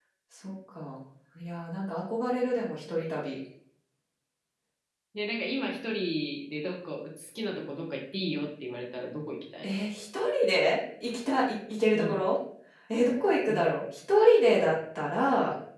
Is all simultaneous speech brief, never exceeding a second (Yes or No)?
Yes